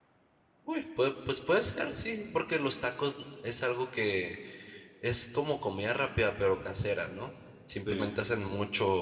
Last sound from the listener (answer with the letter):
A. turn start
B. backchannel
B